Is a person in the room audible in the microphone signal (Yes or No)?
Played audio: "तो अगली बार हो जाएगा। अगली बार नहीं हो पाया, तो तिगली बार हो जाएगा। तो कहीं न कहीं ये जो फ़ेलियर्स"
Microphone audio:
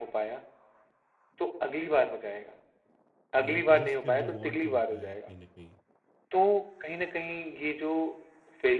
Yes